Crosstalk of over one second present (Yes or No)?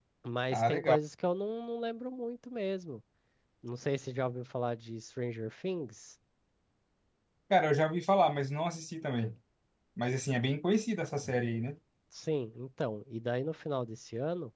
No